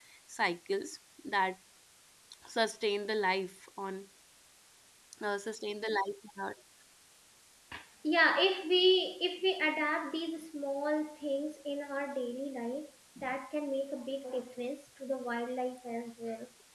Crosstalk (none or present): none